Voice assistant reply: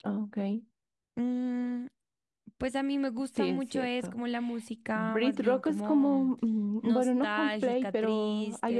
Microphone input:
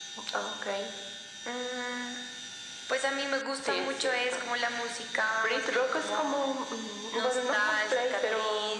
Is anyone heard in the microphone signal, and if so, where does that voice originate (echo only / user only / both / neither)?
echo only